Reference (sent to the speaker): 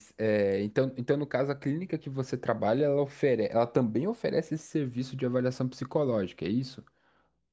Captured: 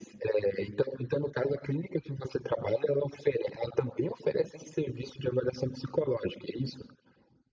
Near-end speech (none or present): none